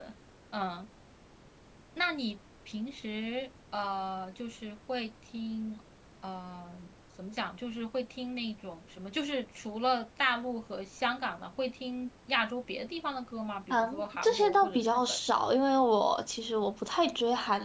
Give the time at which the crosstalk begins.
13.7 s

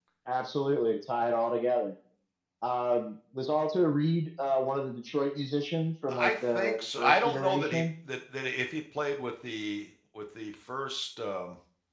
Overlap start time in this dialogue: 6.1 s

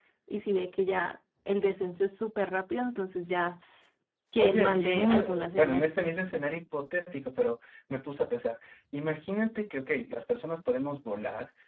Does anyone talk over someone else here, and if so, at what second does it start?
4.4 s

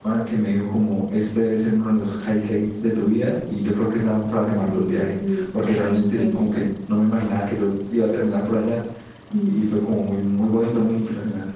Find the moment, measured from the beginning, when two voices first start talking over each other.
4.5 s

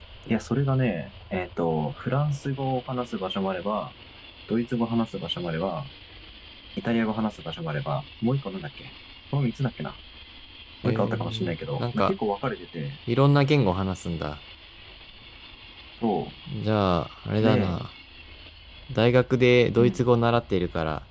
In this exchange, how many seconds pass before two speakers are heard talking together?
10.8 s

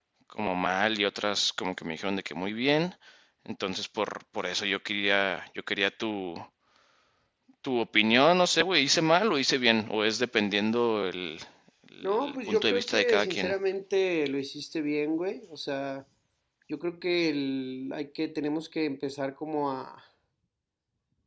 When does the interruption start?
12.0 s

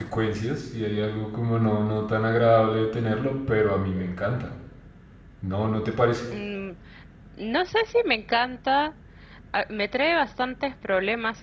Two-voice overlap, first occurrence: none

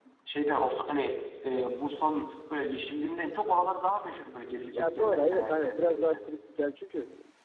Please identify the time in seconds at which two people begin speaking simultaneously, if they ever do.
4.8 s

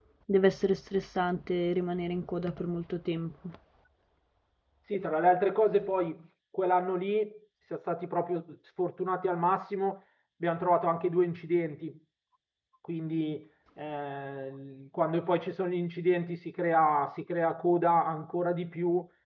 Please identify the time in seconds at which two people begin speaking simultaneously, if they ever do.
none

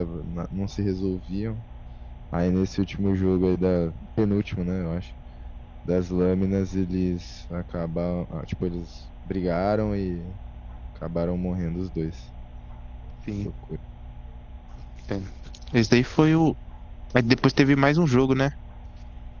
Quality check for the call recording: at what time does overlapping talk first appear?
none

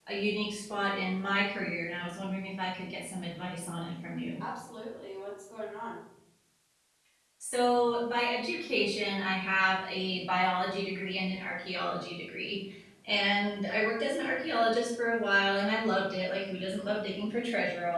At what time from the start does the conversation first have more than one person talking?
none

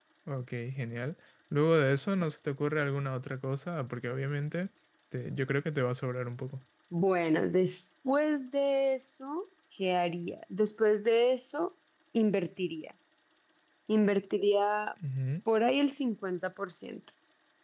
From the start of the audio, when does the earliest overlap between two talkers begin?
none

